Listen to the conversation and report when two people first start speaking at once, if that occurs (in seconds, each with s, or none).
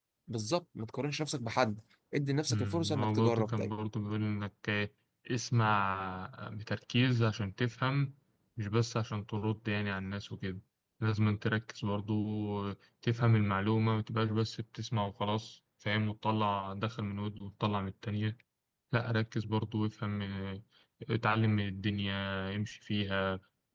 2.5 s